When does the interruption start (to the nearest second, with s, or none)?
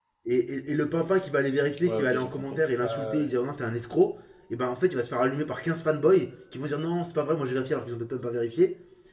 2 s